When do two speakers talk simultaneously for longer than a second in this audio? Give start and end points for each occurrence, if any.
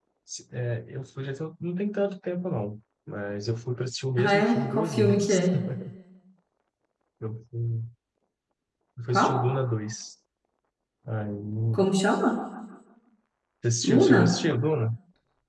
4.2-5.4

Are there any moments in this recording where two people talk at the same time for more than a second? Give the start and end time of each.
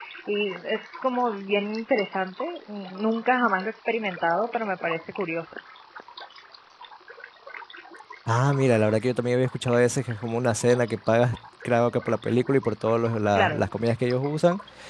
none

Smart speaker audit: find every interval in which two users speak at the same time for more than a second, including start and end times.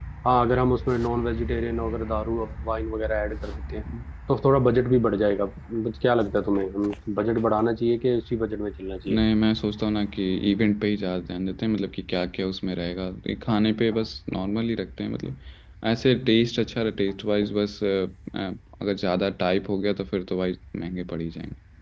none

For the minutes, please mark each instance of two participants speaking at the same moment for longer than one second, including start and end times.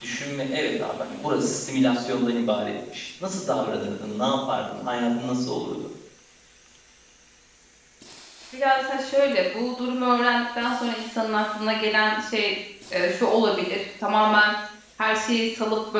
none

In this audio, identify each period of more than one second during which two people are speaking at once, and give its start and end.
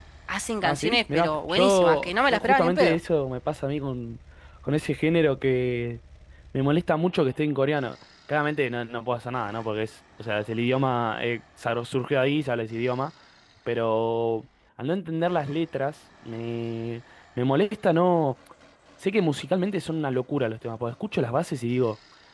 0.7-3.0

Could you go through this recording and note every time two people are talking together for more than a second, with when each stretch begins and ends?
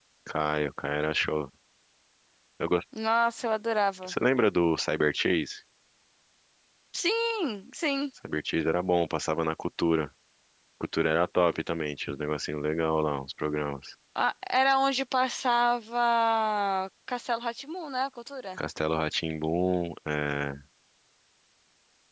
none

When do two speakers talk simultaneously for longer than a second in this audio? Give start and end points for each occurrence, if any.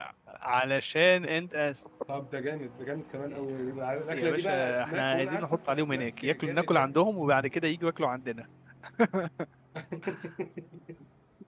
4.1-6.9

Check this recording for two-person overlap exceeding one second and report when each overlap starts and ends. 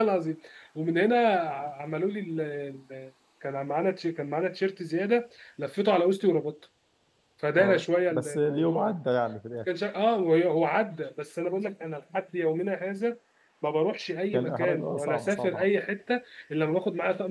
7.6-8.9, 14.3-15.7

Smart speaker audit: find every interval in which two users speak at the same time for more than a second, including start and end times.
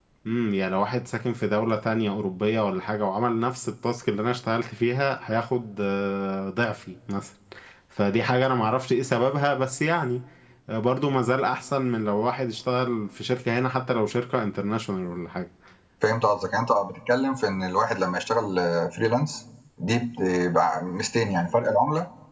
none

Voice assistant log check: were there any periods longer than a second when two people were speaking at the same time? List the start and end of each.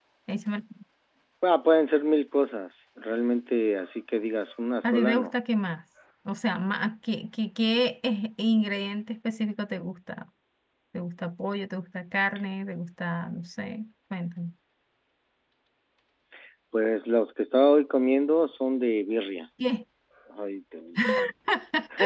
none

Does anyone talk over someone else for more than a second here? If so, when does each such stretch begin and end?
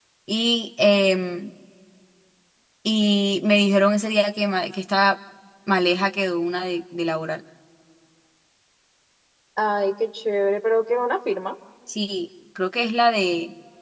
none

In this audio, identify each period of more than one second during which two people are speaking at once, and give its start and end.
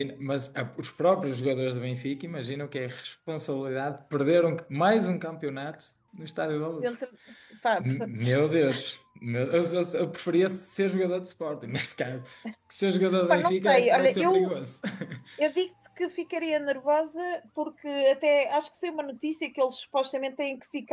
13.3-14.5

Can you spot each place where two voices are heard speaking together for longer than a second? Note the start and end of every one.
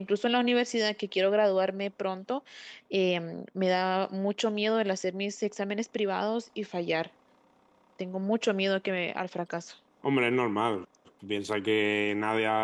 none

